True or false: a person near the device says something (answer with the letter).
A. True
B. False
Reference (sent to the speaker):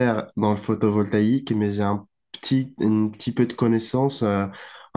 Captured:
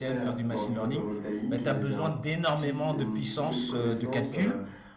A